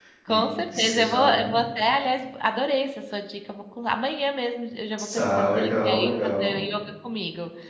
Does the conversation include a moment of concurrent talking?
Yes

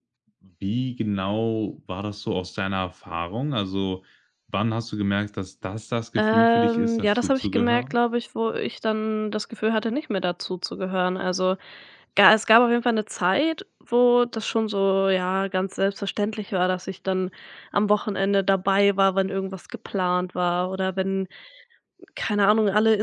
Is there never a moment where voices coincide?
No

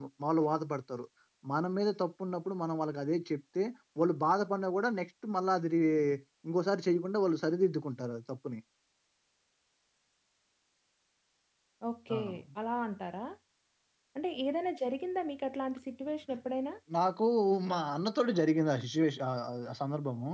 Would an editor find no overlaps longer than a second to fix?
Yes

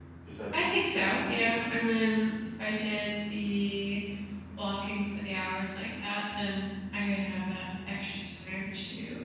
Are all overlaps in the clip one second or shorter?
No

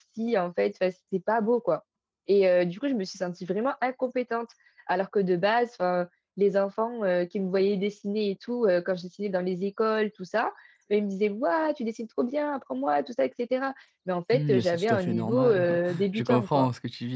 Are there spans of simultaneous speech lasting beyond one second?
Yes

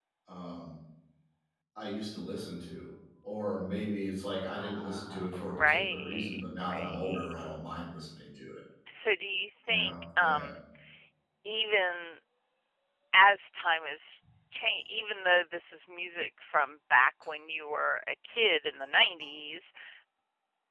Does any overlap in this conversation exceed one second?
Yes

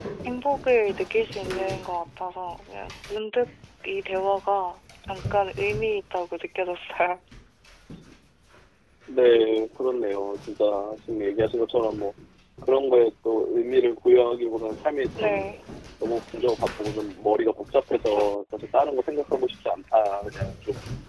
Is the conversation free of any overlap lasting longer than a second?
Yes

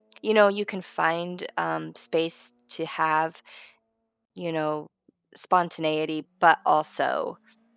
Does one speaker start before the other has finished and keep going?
No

